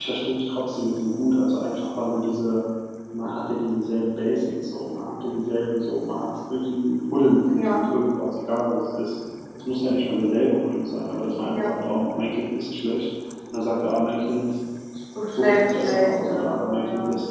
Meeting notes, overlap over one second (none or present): present